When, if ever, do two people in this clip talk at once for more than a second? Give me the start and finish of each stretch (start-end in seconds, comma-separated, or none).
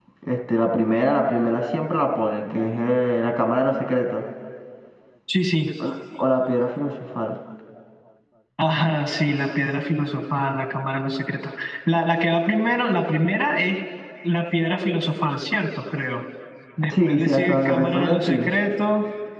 16.9-18.5